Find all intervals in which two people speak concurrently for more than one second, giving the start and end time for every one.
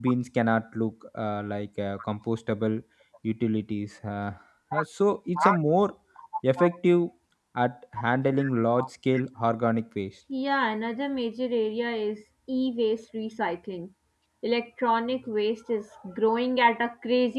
none

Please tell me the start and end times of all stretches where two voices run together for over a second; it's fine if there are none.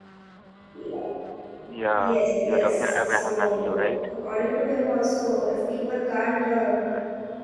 1.9-3.9

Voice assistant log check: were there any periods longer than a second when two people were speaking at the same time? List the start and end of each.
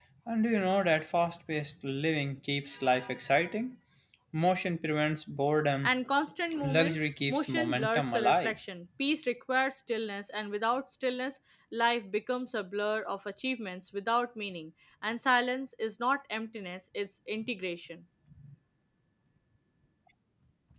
6.6-8.6

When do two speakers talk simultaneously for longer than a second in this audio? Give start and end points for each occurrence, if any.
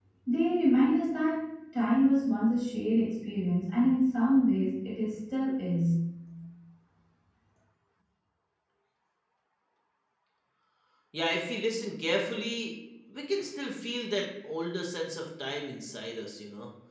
none

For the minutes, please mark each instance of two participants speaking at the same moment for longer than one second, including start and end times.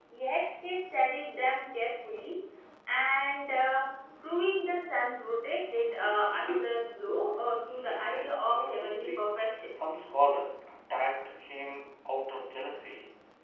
8.0-9.3

